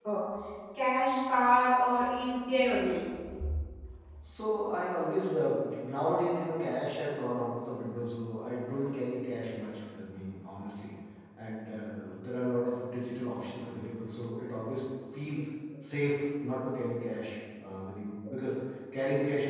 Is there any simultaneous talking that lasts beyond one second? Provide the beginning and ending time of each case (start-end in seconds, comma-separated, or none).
none